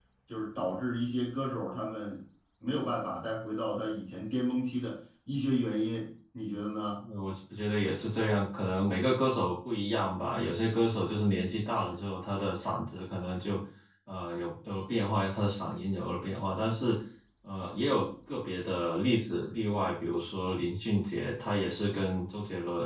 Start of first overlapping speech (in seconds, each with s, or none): none